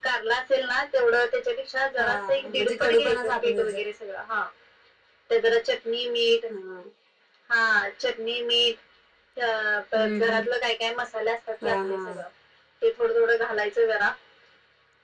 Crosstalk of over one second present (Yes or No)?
Yes